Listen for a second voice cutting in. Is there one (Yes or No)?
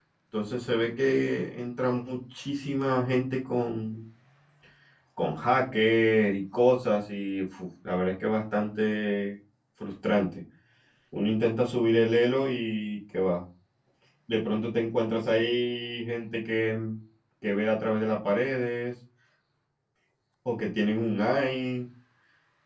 No